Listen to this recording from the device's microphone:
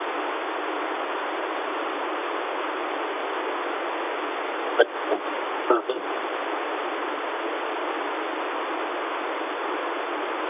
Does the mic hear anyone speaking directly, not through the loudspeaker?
Yes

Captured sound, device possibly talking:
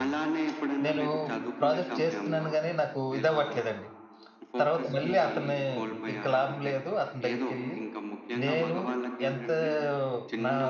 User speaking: Yes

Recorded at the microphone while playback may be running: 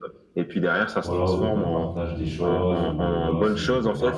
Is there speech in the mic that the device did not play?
Yes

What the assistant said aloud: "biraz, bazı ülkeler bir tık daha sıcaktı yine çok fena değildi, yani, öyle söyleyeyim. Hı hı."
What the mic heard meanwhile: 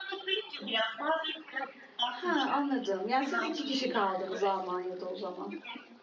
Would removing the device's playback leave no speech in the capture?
No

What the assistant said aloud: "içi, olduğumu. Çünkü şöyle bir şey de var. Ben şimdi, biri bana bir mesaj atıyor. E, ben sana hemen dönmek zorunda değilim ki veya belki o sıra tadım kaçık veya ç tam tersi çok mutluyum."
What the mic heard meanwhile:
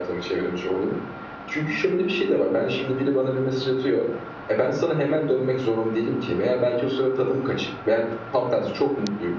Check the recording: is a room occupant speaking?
No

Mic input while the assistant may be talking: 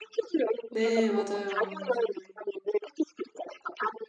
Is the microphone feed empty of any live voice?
No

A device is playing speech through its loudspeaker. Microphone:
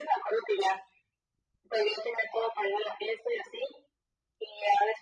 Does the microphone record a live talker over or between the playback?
No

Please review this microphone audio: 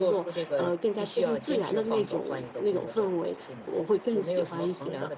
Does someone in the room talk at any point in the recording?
No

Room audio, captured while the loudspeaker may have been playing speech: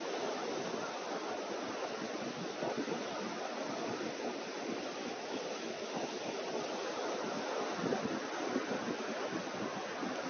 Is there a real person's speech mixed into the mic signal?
No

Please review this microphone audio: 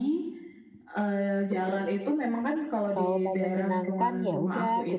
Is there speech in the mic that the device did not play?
Yes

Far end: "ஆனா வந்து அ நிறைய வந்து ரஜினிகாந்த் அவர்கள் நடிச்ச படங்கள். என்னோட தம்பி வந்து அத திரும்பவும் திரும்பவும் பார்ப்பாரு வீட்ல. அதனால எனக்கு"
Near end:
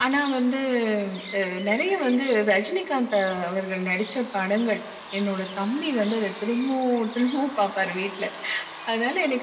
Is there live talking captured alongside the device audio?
No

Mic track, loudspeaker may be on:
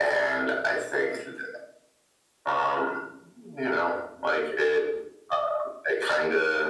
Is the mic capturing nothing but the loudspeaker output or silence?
Yes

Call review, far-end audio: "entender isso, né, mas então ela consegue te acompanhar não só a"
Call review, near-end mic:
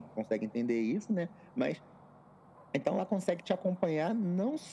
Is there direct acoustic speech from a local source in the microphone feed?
No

